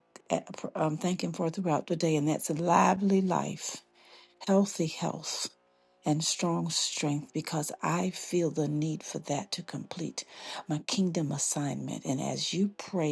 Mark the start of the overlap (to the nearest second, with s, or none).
none